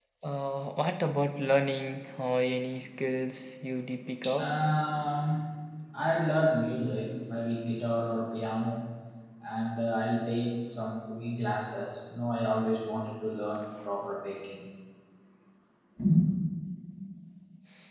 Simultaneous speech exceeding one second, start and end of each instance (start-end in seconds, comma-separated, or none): none